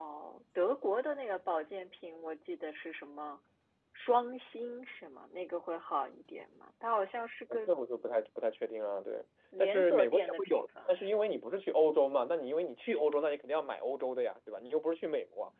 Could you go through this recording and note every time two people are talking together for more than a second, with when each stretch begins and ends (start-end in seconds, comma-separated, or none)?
9.6-11.2